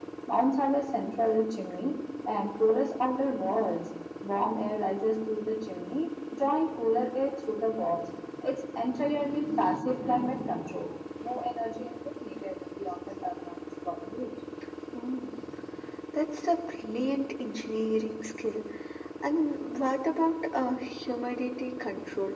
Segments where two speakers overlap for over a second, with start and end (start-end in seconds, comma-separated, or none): none